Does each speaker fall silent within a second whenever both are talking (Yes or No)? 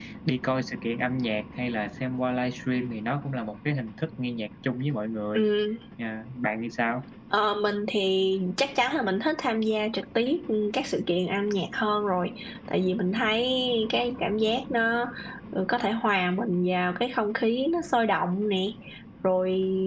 Yes